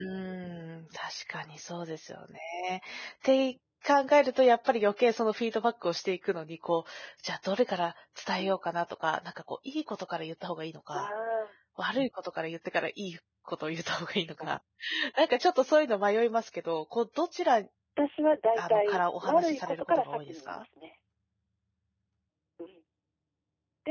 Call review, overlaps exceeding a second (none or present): present